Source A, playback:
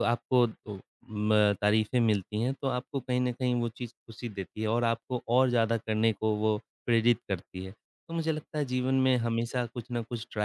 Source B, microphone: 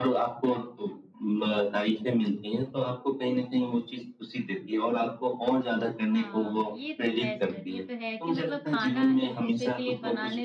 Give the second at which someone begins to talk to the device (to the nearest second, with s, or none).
6 s